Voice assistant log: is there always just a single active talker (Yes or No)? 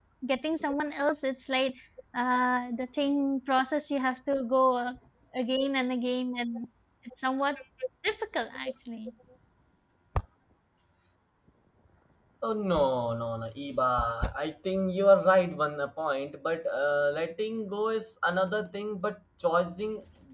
Yes